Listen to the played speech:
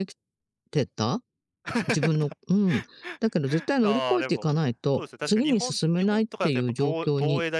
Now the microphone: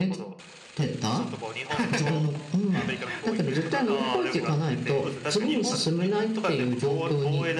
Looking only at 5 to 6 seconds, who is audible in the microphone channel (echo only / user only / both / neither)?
both